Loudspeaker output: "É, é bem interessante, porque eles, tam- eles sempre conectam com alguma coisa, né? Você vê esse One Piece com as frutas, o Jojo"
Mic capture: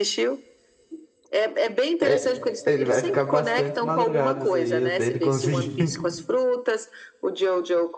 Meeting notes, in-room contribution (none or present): present